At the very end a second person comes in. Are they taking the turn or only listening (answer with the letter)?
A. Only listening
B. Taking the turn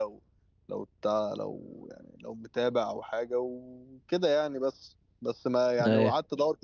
A